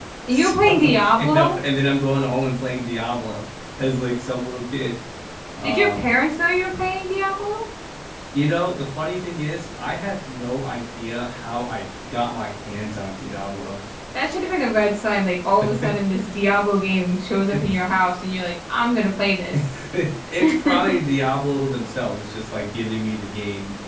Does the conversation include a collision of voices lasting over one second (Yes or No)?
Yes